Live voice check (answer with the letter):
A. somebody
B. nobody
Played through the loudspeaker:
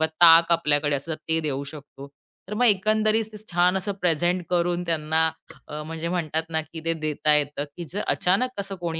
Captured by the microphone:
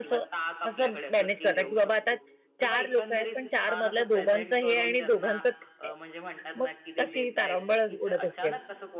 A